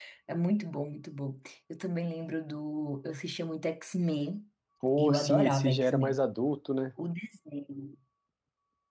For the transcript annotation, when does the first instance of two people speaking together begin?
5.0 s

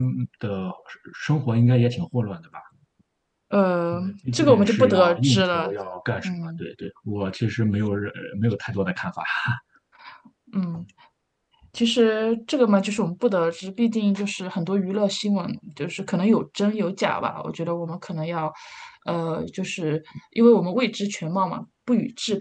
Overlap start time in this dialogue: 3.9 s

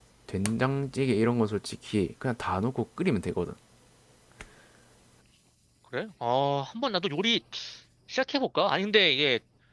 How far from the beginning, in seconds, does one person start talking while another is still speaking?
none

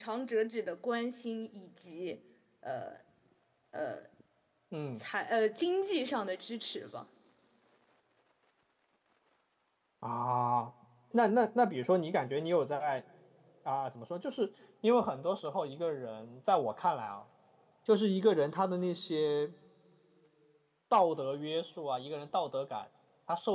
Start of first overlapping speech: none

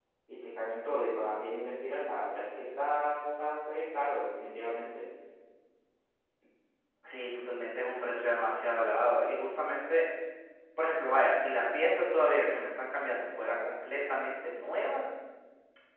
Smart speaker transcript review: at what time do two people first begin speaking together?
none

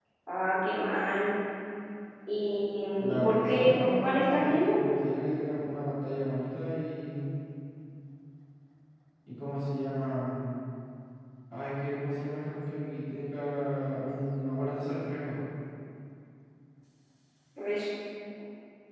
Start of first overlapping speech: 3.0 s

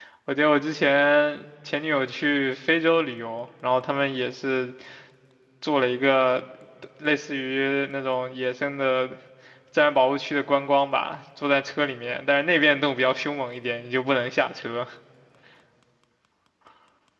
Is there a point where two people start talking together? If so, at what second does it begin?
none

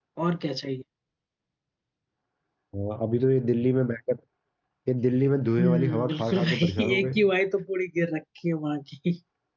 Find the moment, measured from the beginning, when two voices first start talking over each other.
5.6 s

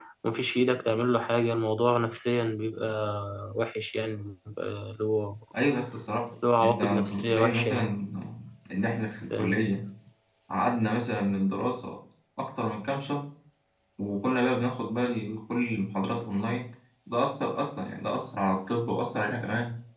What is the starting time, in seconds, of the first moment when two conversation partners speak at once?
6.6 s

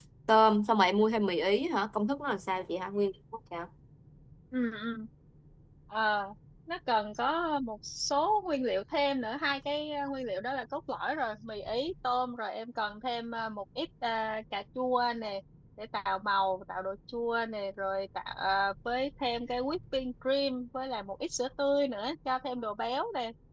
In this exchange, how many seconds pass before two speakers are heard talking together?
none

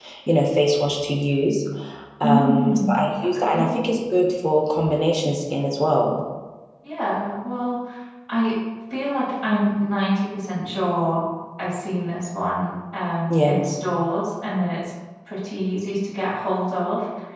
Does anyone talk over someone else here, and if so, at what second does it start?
2.2 s

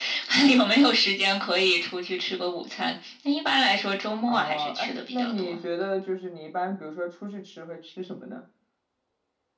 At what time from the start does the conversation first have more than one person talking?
4.3 s

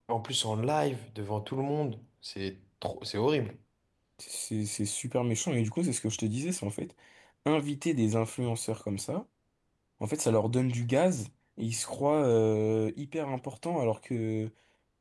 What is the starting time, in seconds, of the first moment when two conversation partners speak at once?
none

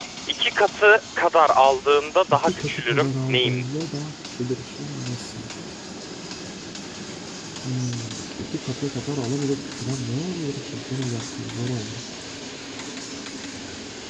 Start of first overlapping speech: 2.3 s

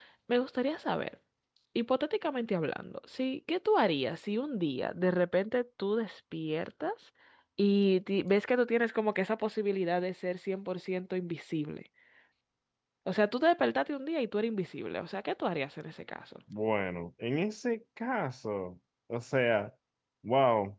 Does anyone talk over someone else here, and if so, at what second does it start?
none

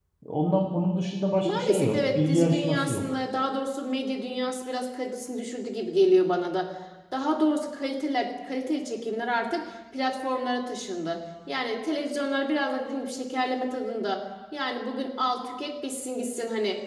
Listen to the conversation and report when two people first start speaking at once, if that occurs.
1.4 s

